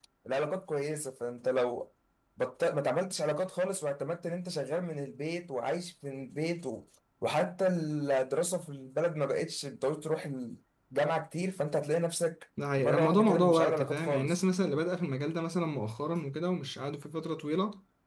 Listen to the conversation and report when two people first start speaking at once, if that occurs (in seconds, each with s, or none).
12.6 s